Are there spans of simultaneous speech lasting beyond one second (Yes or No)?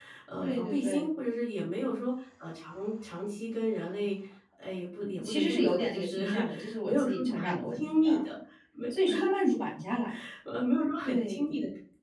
Yes